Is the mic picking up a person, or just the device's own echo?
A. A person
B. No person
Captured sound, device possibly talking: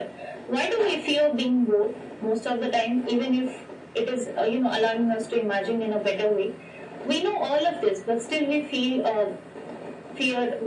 B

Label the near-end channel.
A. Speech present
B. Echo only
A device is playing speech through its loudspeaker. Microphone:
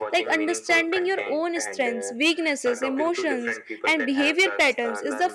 A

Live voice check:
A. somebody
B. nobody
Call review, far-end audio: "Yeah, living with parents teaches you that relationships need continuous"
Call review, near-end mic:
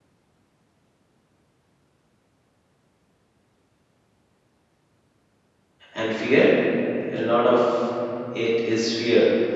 A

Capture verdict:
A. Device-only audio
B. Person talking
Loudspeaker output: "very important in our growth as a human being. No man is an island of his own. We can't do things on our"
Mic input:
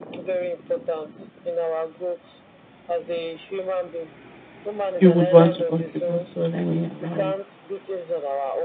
B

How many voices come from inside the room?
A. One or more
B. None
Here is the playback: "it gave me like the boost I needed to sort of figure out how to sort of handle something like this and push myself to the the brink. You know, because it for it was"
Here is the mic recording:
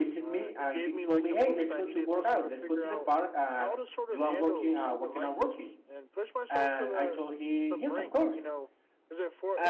A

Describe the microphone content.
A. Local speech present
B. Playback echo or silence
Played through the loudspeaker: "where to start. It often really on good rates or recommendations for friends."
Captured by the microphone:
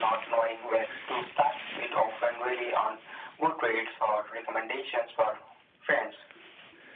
B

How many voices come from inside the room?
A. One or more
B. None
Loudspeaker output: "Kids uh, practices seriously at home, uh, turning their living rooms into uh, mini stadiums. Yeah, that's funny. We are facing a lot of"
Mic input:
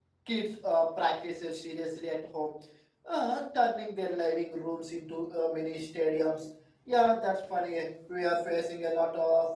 B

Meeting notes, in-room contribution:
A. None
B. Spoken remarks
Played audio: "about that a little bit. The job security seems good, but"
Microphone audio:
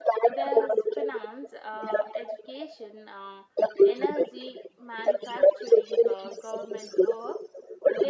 B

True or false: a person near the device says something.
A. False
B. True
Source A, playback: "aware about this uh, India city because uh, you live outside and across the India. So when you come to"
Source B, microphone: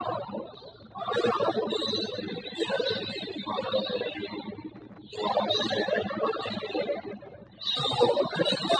A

